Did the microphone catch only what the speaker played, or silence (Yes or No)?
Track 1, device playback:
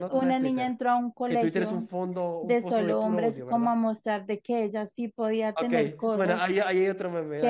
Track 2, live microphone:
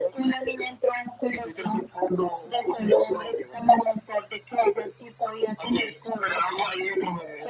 Yes